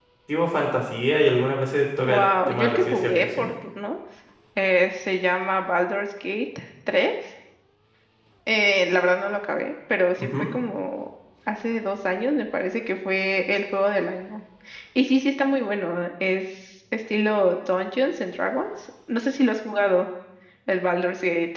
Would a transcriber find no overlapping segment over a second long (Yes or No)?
No